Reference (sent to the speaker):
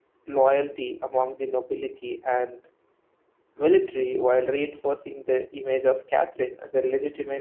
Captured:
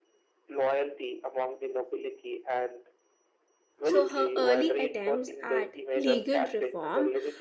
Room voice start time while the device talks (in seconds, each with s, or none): 3.8 s